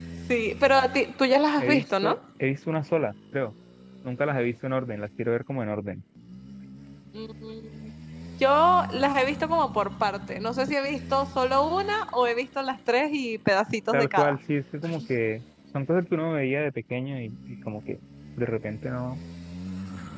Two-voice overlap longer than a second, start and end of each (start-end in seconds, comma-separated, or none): none